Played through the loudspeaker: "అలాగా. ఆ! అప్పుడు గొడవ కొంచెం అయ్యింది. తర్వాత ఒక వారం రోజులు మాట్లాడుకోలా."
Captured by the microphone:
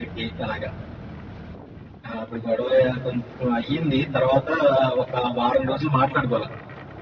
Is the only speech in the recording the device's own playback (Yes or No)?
Yes